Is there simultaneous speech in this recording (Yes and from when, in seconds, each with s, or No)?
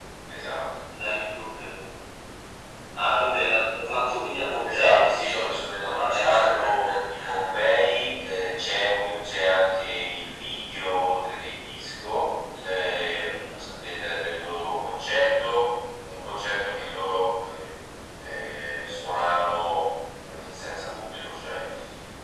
Yes, from 4.6 s